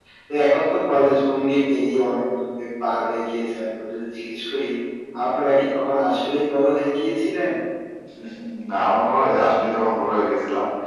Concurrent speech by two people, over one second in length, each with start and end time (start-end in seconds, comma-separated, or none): none